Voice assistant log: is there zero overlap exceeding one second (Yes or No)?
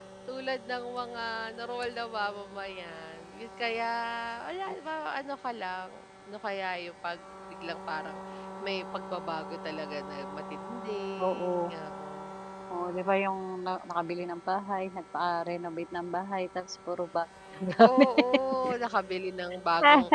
Yes